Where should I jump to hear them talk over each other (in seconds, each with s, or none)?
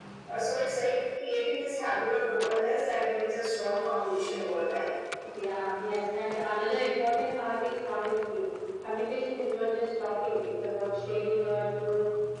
none